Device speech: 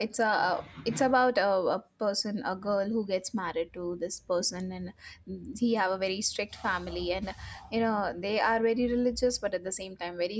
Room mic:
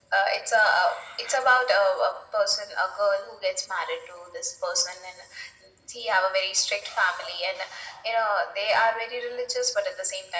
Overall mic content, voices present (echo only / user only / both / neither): echo only